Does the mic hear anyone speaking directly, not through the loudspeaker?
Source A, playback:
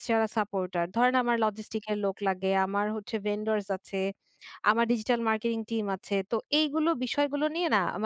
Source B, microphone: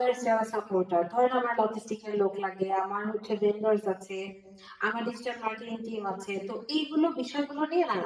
No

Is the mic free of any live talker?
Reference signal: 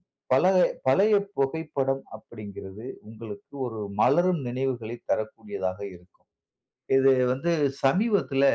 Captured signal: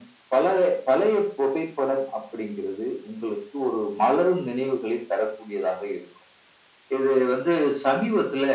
Yes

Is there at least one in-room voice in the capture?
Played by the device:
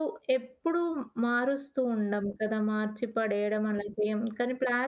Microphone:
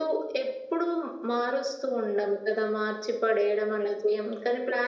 No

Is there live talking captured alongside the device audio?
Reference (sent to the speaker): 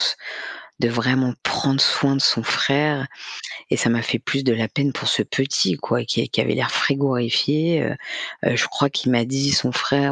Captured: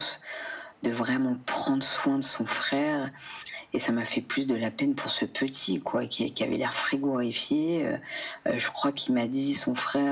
No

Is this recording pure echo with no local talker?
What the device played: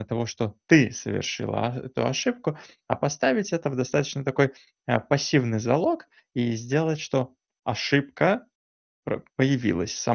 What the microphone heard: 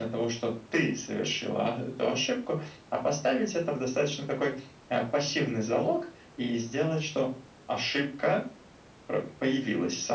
Yes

